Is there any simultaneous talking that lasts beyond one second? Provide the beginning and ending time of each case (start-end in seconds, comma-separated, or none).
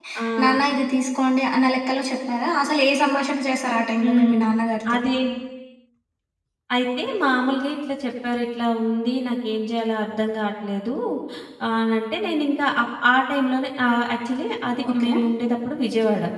none